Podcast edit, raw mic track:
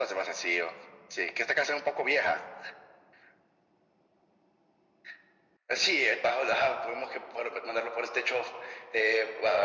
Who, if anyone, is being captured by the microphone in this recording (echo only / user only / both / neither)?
echo only